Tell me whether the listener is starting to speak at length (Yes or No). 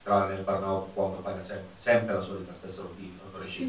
Yes